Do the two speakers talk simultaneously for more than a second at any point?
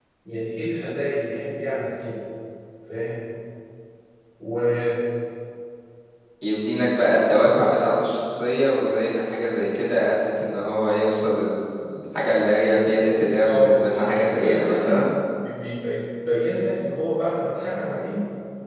Yes, from 13.4 s

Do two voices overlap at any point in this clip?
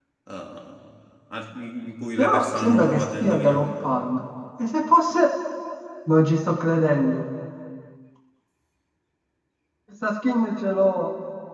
Yes, from 2.2 s

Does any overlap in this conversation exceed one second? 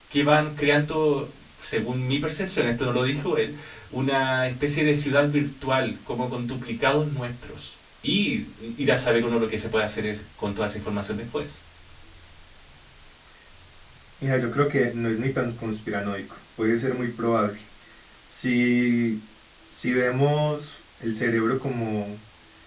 No

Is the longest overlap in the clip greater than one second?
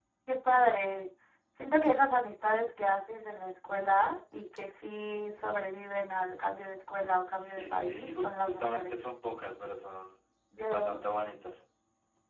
Yes, from 7.4 s

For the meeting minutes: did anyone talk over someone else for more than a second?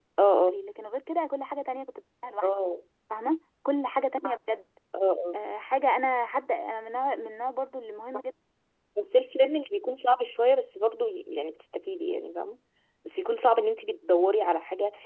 No

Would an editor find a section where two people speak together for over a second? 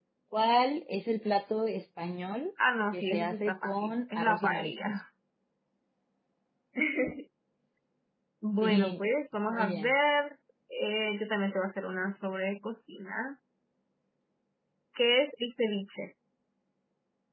Yes, from 2.9 s

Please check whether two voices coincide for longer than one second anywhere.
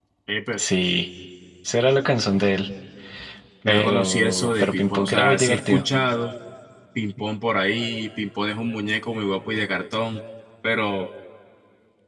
Yes, from 3.6 s

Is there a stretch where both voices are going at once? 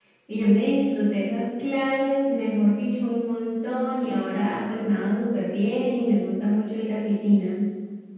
No

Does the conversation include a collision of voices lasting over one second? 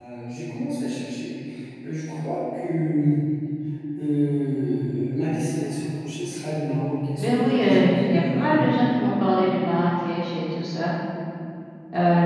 Yes, from 7.2 s

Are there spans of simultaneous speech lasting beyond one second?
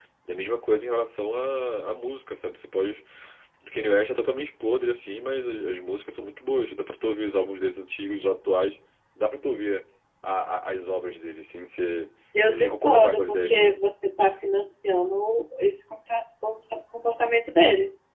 Yes, from 12.5 s

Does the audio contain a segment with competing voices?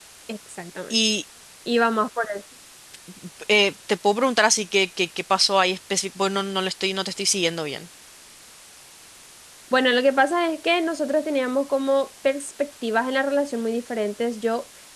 No

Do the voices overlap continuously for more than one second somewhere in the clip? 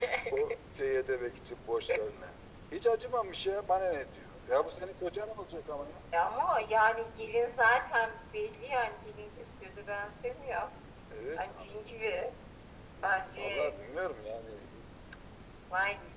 No

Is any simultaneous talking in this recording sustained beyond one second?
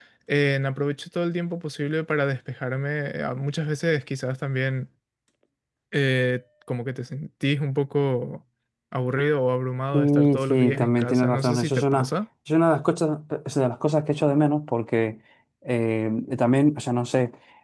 Yes, from 9.9 s

